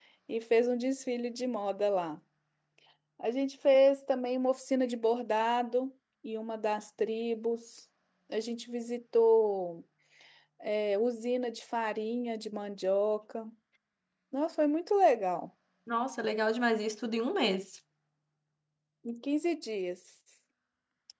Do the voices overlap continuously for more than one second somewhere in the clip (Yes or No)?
No